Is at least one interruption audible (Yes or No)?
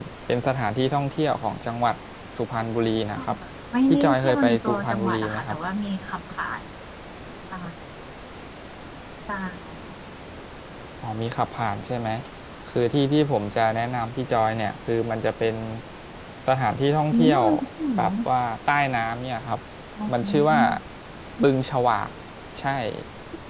Yes